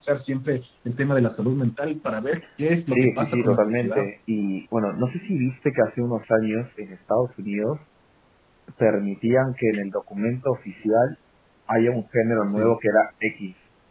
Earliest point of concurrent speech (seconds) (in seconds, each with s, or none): 2.9 s